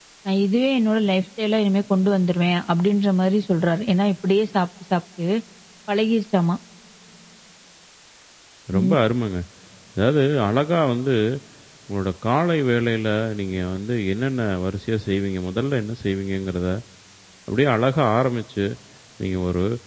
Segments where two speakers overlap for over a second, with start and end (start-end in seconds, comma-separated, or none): none